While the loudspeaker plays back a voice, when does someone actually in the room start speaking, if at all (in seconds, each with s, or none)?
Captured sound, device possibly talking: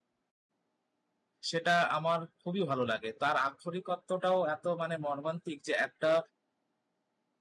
1.5 s